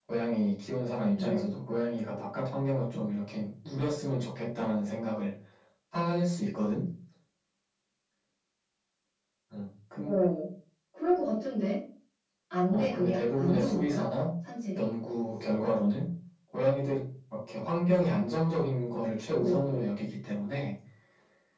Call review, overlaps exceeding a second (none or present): present